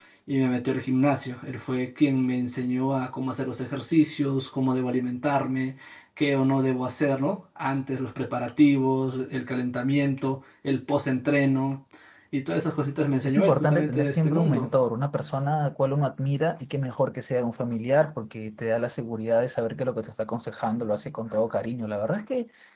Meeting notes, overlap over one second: present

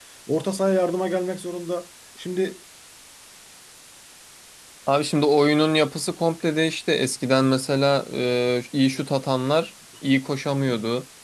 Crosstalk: none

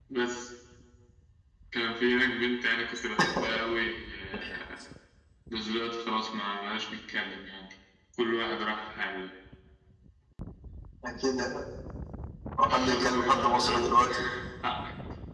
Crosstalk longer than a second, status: present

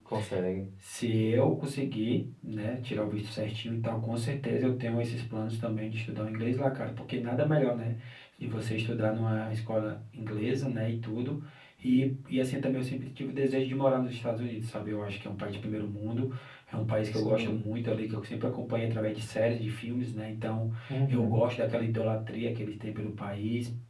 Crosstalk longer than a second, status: none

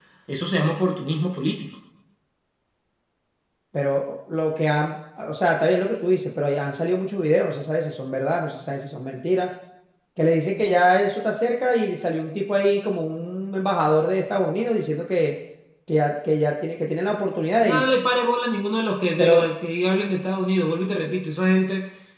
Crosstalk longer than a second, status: none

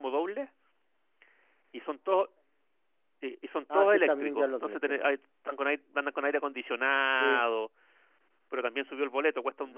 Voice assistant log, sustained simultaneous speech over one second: present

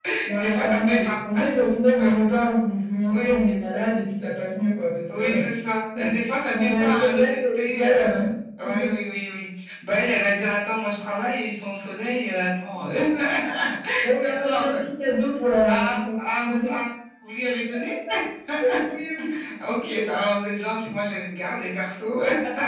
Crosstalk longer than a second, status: present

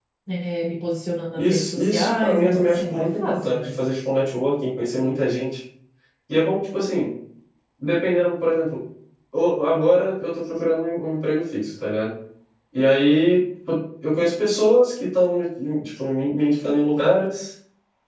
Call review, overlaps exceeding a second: present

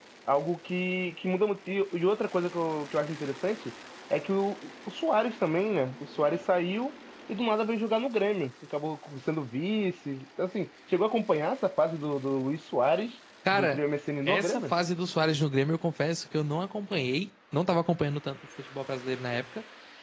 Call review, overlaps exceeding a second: none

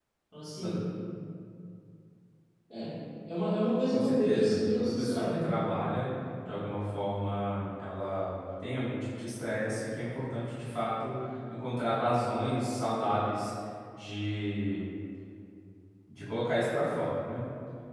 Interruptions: present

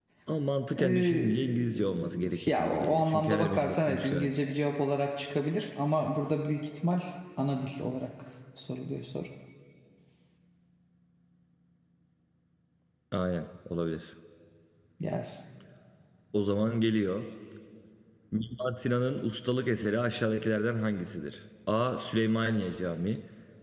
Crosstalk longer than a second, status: present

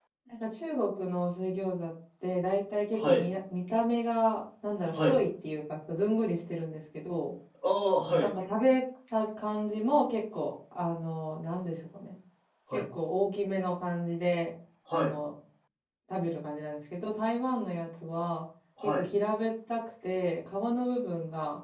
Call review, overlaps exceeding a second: none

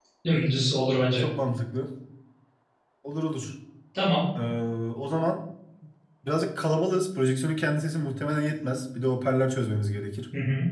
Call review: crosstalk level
none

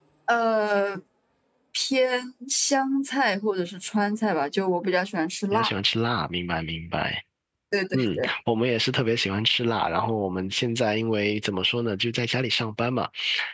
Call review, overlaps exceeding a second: none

